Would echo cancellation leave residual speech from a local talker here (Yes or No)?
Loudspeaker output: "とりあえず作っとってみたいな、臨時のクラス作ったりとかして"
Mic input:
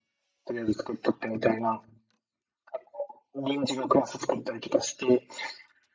No